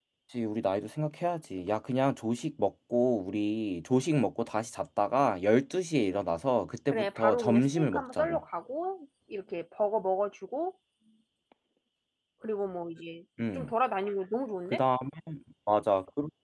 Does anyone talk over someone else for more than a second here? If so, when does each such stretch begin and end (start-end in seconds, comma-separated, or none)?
6.9-8.4